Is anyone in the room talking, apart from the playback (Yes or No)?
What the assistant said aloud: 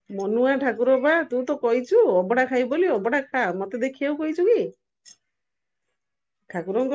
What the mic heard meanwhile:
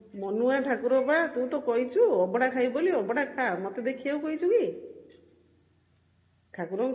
No